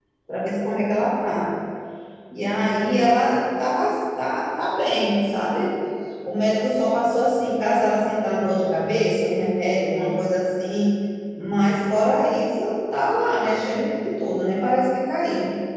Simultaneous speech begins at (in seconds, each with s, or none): none